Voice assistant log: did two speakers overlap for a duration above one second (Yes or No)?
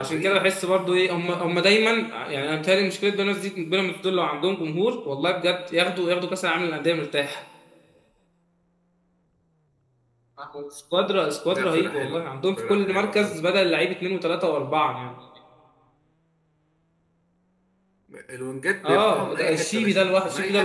Yes